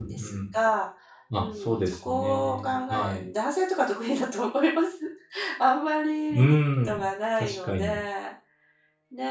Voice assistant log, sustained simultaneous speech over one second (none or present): present